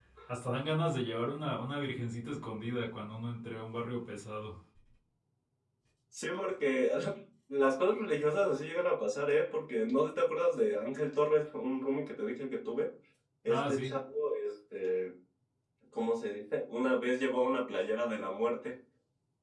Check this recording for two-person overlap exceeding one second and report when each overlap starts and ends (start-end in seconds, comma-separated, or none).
none